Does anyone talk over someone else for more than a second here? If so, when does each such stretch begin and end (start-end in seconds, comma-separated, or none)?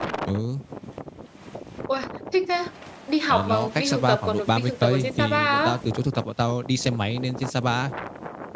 3.3-5.7